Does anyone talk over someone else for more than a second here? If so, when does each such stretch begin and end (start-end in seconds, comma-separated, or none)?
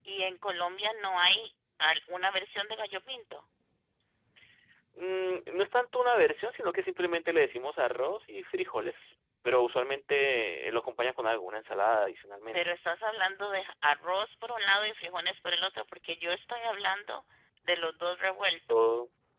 none